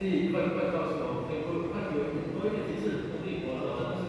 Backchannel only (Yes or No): No